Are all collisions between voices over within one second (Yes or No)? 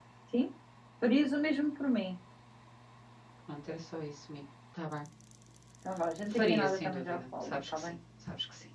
No